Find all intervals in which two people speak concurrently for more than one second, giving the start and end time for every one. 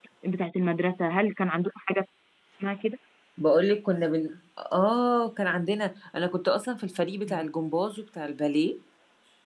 none

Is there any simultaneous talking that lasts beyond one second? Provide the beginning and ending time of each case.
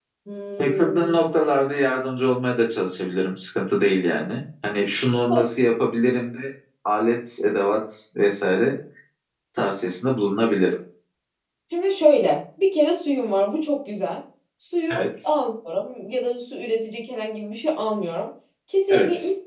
none

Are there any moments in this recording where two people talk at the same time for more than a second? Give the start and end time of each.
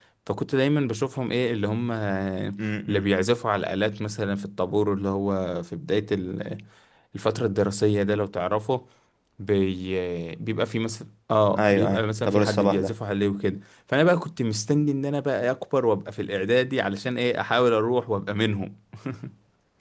11.6-12.9

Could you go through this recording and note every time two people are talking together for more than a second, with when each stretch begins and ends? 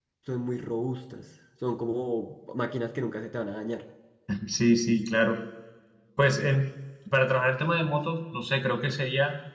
none

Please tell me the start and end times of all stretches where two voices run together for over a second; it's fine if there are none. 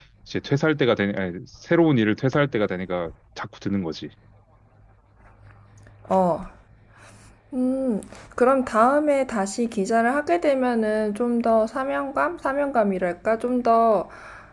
none

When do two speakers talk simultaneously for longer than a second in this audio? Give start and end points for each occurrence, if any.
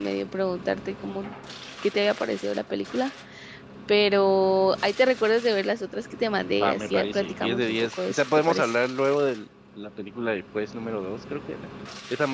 6.6-8.8

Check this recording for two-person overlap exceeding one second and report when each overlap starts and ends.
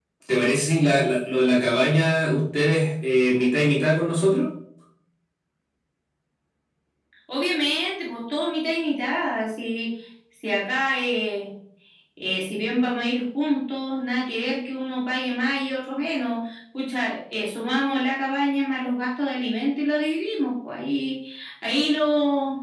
none

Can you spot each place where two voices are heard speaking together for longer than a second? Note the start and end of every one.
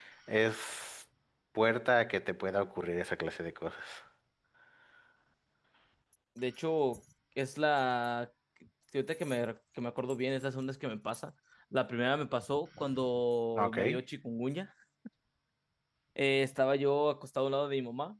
none

